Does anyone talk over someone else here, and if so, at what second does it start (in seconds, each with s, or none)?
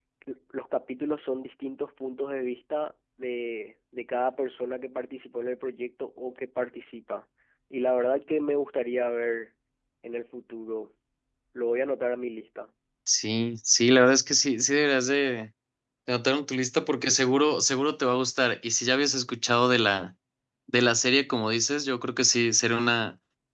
none